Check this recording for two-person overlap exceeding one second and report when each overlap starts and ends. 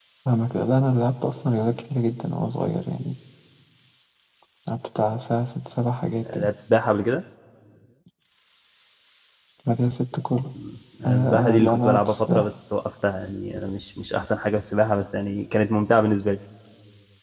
11.1-12.5

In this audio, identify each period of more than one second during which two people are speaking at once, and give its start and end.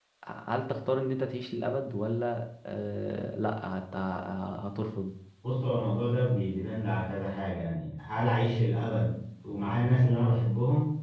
none

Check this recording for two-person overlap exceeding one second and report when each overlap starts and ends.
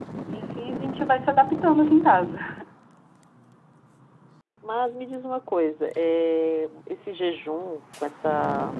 none

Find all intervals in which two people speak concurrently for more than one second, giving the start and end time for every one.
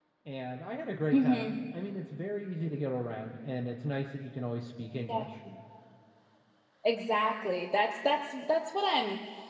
none

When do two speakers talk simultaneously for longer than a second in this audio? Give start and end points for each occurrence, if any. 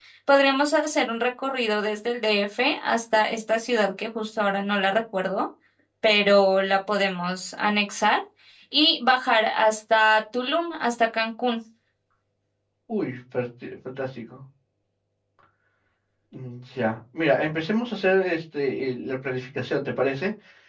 none

